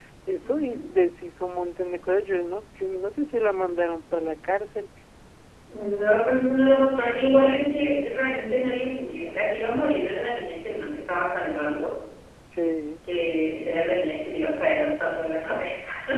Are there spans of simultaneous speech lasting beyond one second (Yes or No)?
No